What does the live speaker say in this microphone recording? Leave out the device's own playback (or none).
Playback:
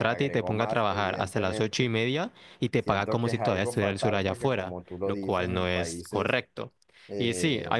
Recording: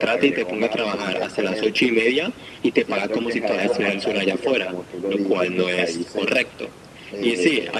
claro.